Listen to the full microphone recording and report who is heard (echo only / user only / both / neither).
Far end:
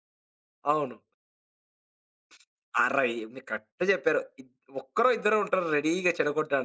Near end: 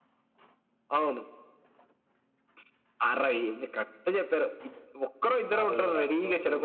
both